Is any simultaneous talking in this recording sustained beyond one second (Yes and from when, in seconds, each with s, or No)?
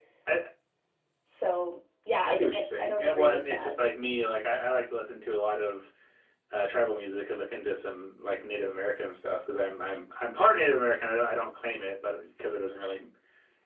Yes, from 2.2 s